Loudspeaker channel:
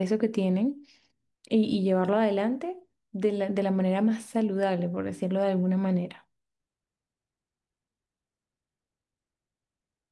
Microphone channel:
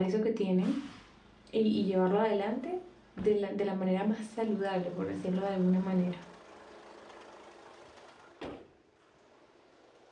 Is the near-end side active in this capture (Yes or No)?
No